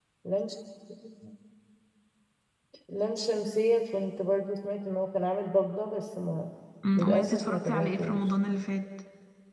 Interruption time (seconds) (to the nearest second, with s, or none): 7 s